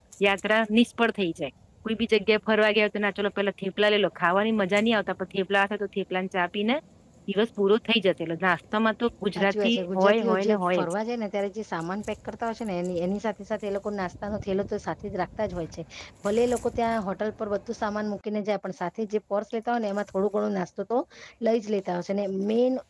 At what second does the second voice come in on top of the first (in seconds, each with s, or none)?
9.3 s